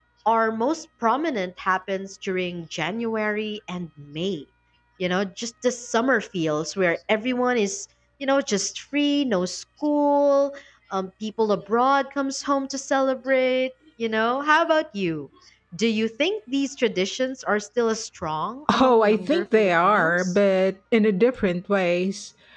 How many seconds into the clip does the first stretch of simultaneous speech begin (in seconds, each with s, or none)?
18.7 s